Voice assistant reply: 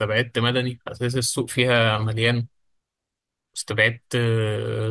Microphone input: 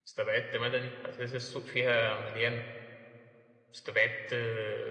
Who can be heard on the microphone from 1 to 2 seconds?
echo only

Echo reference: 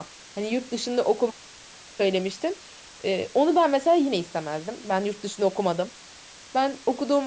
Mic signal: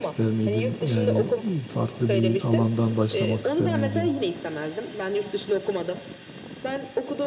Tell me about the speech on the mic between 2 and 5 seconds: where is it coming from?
both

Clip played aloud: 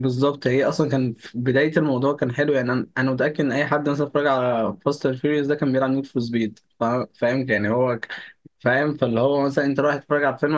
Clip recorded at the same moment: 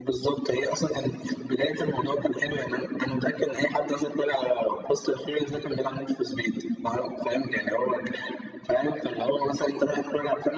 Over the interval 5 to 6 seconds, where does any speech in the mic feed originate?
echo only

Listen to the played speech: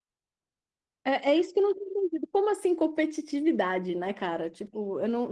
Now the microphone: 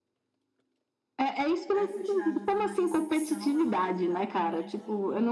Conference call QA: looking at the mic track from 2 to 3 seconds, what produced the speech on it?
both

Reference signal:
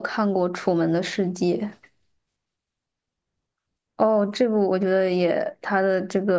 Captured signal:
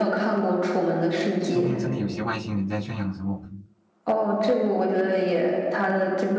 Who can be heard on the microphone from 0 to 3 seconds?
both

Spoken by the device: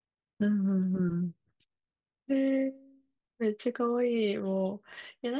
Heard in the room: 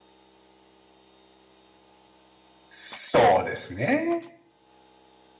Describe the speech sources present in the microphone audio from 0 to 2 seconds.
neither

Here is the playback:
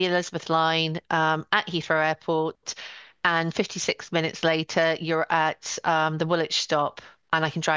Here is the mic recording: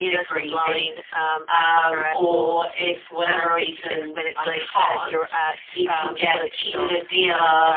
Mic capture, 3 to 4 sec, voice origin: both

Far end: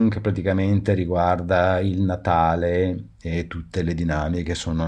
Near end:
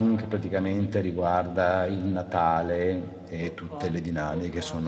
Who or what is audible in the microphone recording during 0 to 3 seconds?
echo only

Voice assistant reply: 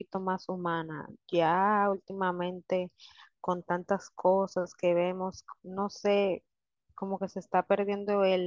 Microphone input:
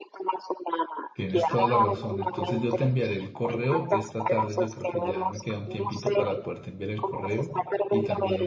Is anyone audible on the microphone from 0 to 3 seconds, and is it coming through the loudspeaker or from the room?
both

